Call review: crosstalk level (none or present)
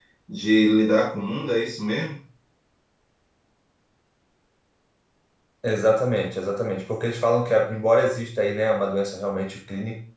none